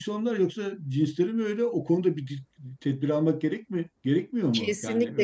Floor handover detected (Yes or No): Yes